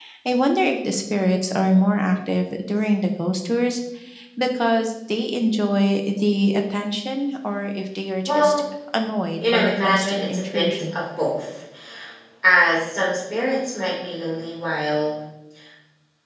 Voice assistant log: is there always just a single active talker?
No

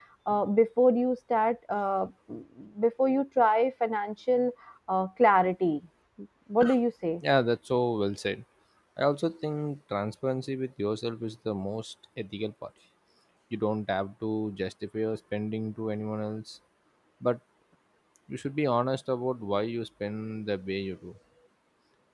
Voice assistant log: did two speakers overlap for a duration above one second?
No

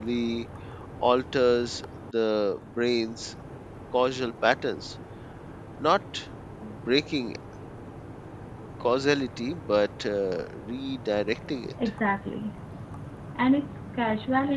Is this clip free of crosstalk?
Yes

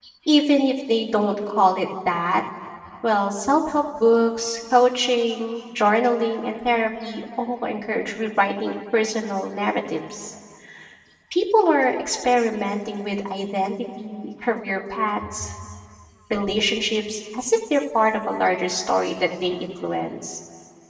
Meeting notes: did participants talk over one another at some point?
No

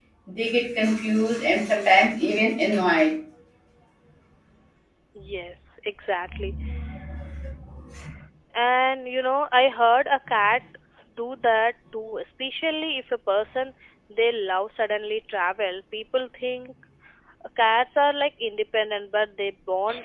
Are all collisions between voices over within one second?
Yes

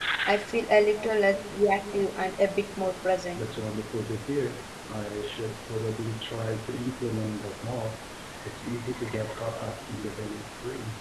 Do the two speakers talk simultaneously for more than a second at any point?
No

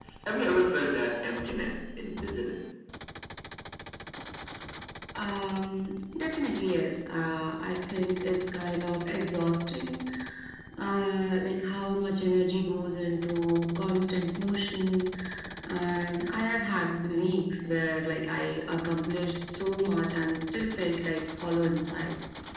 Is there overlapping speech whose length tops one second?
No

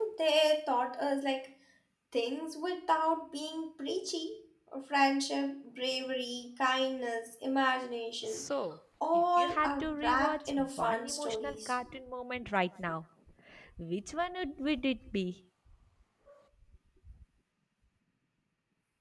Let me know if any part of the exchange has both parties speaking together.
Yes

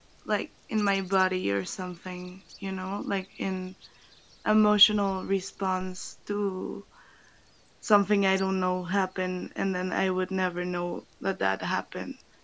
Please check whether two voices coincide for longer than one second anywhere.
No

